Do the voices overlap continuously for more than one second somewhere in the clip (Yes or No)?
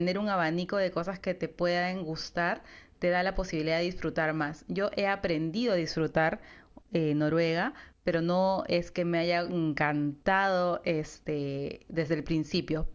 No